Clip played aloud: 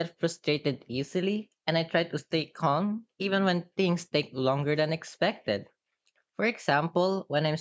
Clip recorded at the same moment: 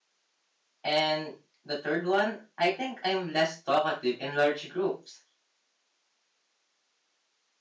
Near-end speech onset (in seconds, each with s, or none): 0.8 s